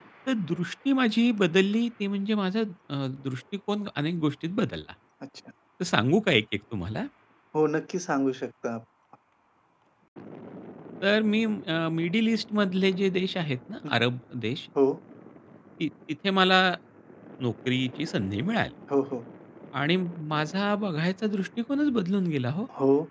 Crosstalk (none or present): none